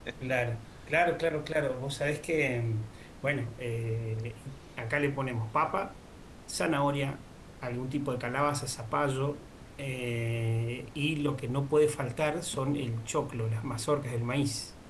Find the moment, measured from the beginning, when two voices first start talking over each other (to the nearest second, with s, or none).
none